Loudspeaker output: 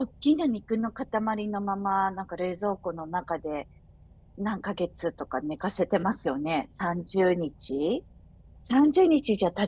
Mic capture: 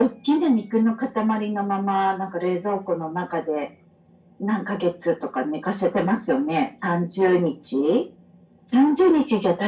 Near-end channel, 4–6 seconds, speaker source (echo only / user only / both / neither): echo only